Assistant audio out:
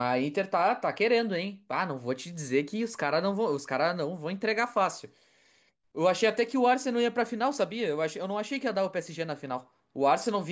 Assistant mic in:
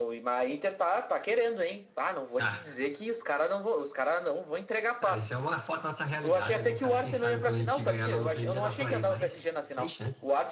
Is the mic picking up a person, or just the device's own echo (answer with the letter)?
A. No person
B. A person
B